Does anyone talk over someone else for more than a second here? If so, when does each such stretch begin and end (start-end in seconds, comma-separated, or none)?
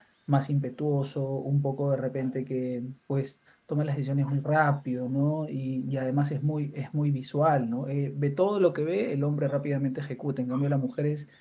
none